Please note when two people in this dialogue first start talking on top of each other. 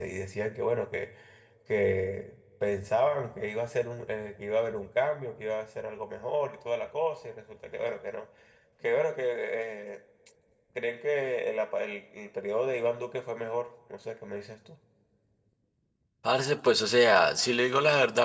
none

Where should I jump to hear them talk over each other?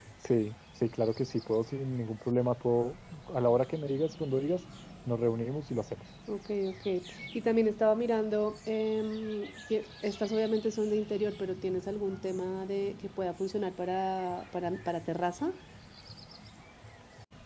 none

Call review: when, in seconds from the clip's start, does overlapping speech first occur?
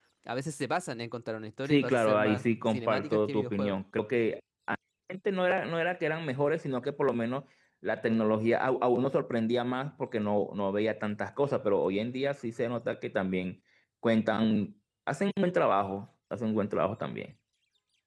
1.7 s

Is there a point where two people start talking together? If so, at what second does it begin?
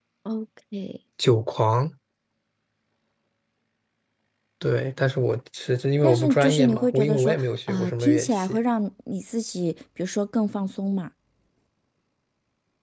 6.0 s

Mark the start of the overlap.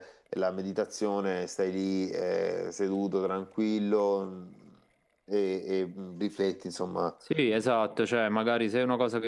none

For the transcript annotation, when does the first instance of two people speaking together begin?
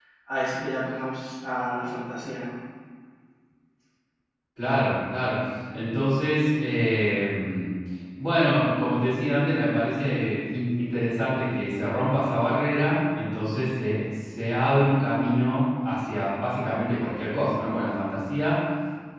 none

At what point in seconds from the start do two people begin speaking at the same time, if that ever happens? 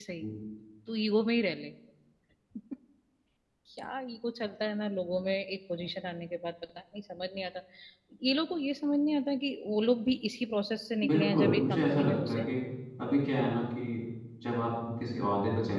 11.0 s

